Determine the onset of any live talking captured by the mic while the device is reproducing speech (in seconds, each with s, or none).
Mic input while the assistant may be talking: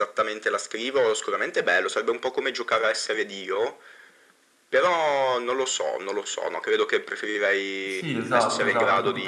7.8 s